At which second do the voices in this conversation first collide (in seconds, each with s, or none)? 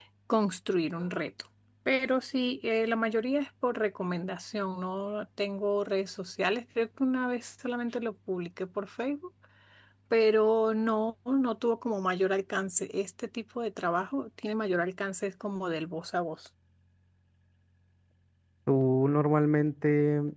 none